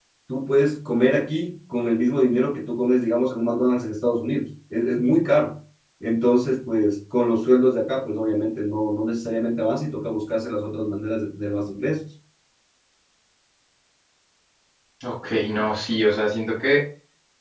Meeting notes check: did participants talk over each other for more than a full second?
No

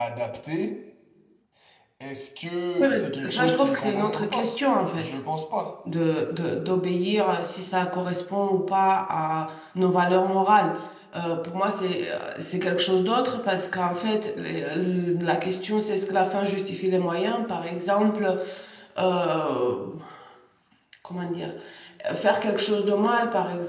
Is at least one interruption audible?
Yes, from 2.8 s

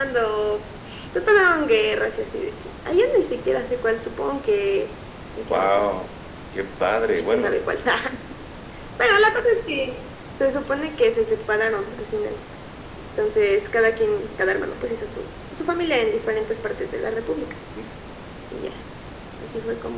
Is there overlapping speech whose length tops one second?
No

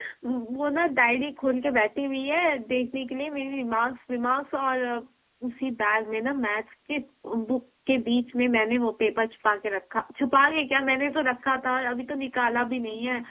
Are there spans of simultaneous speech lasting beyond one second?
No

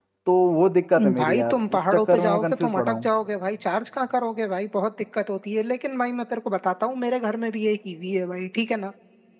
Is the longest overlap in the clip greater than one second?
Yes, from 1.2 s

